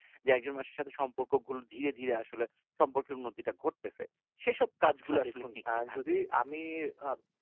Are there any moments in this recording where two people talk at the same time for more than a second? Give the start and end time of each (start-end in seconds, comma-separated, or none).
4.9-6.2